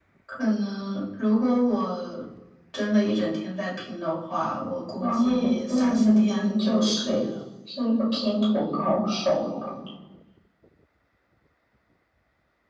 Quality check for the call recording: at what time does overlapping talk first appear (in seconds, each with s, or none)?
5.0 s